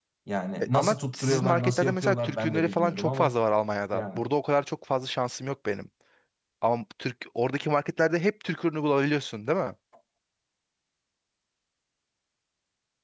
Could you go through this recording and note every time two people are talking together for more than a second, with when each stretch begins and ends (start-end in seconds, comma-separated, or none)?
0.7-3.3